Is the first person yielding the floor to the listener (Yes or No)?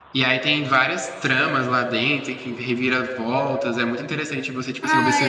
Yes